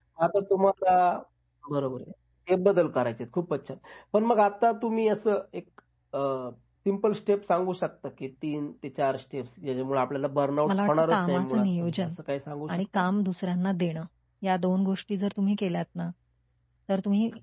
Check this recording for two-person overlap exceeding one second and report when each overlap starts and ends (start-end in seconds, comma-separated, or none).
10.7-12.1